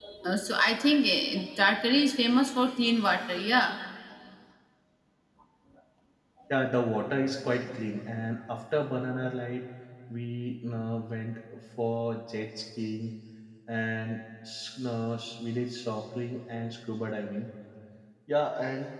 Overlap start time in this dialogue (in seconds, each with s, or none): none